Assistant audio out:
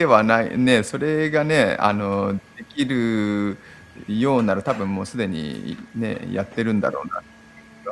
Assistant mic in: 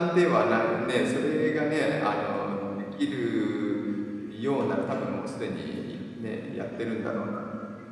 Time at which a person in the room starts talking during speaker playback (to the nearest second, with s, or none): none